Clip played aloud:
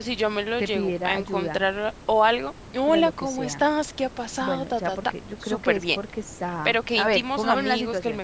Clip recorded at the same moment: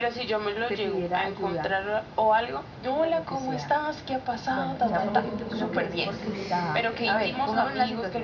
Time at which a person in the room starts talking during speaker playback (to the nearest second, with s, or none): 5 s